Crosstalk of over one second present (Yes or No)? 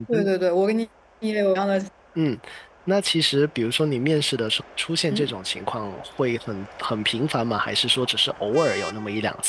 No